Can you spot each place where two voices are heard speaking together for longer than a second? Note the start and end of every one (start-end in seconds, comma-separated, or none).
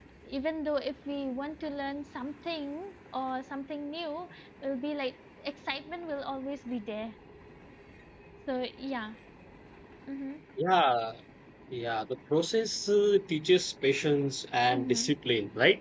none